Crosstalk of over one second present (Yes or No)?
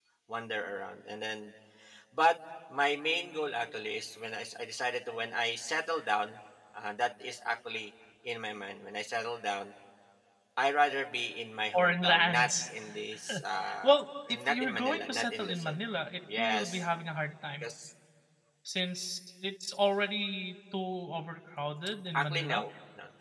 Yes